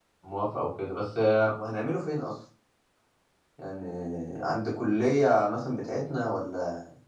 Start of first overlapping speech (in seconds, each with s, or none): none